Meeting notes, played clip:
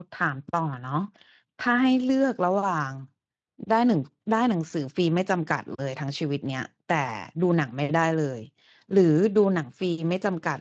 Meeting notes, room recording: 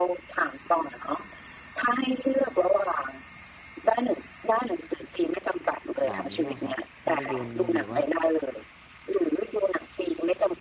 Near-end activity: present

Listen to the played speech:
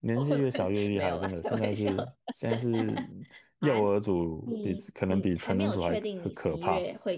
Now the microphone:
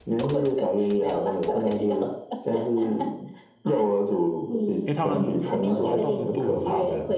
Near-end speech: present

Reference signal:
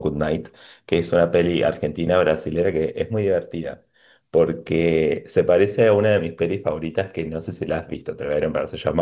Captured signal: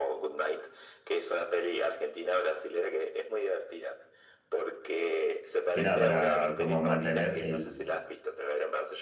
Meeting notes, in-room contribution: present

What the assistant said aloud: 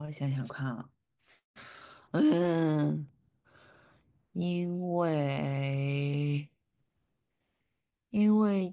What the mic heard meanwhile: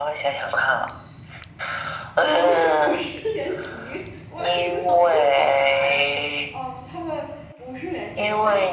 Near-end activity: present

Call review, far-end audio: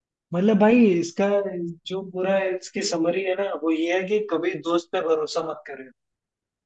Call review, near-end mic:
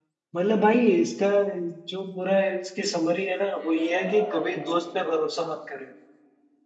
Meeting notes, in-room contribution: present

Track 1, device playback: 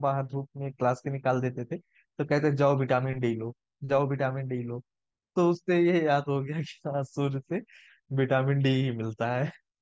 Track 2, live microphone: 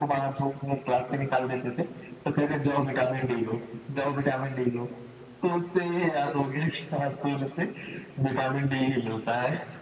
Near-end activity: none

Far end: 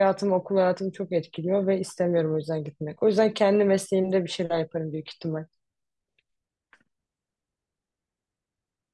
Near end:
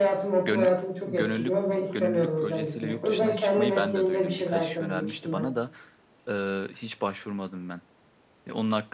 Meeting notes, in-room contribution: present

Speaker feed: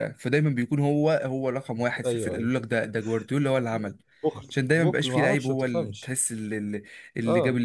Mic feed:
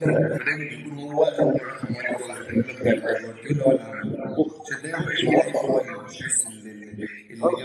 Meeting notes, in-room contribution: none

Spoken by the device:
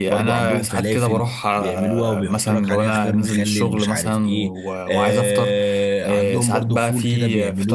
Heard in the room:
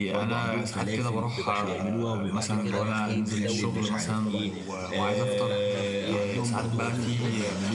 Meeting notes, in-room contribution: present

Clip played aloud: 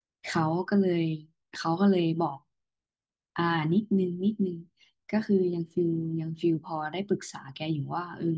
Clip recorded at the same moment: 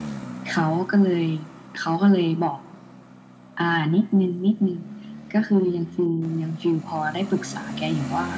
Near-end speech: none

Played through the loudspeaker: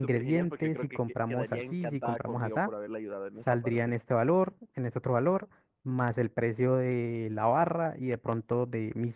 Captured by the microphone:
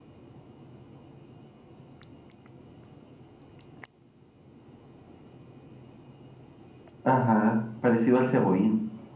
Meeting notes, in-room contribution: present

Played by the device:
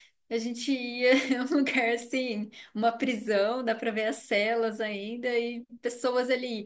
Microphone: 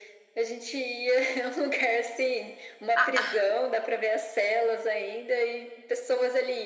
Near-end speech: present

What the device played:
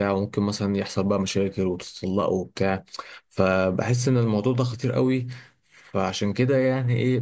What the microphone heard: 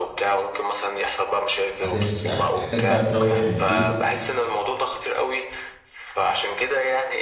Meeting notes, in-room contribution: present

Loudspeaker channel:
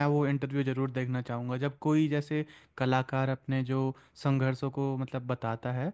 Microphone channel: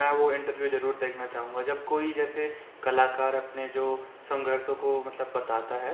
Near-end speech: none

